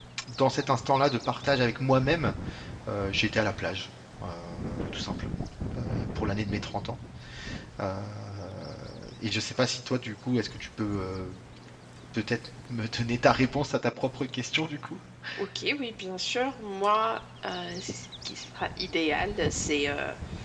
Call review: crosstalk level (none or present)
none